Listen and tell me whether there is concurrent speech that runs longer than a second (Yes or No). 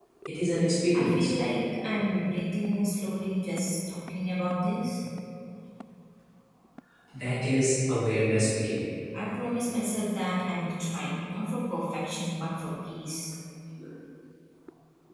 No